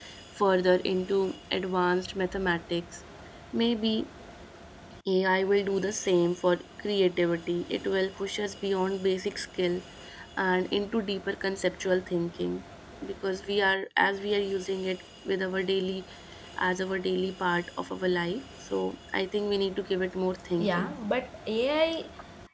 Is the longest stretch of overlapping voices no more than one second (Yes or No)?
Yes